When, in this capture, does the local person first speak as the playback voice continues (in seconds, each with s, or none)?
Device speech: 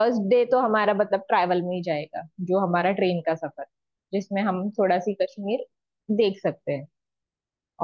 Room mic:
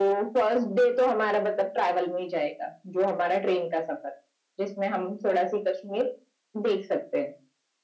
none